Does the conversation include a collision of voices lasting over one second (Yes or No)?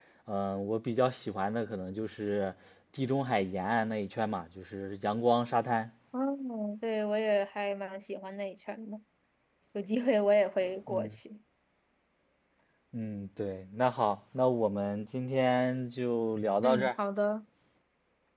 No